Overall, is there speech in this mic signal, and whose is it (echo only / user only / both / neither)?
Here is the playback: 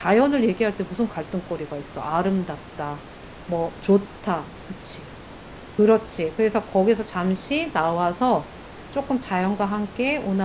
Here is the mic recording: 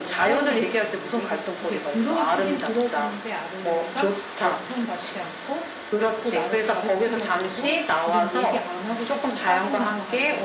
both